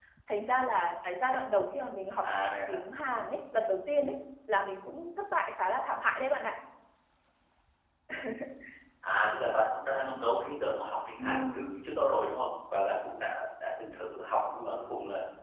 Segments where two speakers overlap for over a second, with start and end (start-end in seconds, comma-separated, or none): none